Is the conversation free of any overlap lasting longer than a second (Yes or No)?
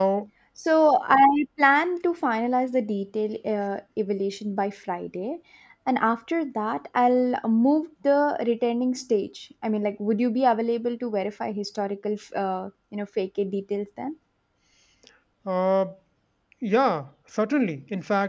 Yes